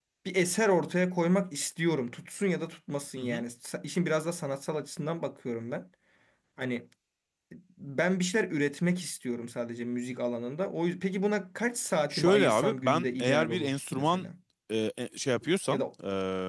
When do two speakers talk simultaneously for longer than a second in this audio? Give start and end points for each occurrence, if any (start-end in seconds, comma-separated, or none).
12.1-14.2